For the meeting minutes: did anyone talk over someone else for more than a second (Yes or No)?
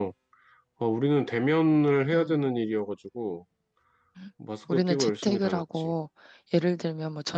Yes